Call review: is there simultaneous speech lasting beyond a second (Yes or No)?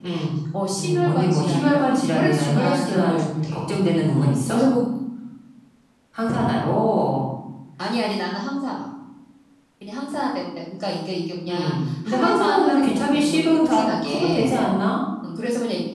Yes